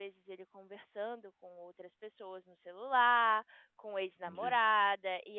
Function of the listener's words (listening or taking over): listening